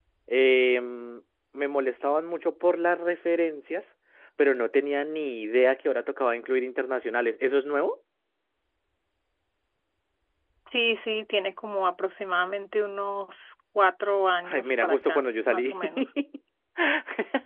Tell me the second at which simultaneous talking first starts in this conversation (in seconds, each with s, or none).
14.4 s